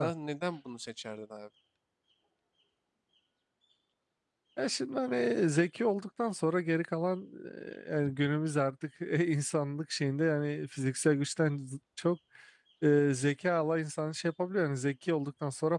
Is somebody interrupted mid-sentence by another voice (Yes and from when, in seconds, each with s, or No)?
No